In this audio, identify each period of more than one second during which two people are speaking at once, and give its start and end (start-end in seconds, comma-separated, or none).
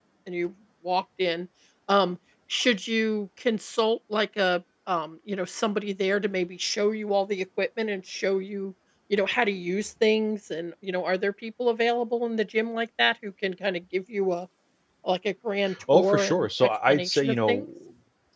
15.9-17.7